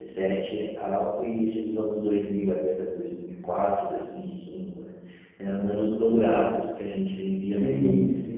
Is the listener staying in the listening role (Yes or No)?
No